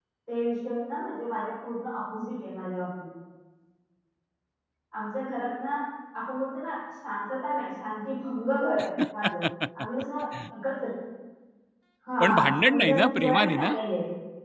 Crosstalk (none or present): present